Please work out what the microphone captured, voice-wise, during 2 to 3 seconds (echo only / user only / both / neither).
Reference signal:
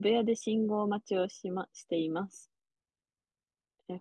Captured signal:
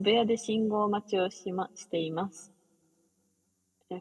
echo only